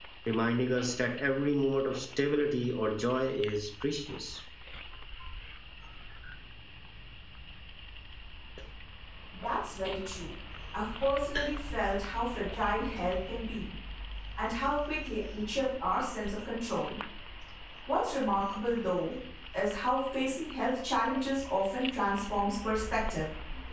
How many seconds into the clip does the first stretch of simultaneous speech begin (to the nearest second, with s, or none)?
none